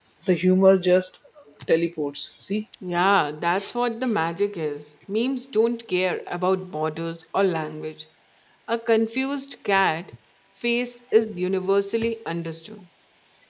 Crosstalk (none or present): none